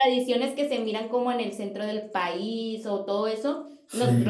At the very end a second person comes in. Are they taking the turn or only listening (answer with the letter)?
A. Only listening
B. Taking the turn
A